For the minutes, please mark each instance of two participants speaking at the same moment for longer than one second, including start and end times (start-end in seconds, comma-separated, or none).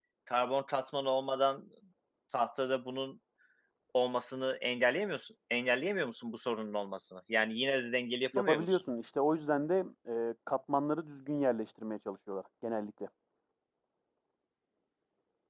none